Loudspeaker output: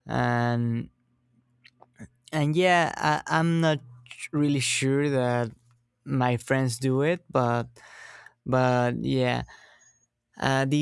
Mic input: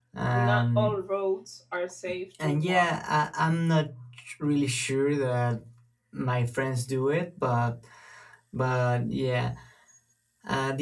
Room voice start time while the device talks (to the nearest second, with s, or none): 0 s